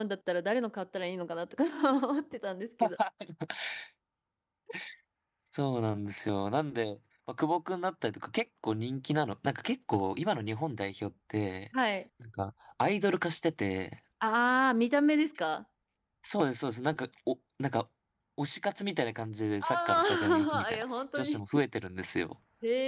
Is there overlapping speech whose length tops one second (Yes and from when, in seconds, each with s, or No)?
Yes, from 19.6 s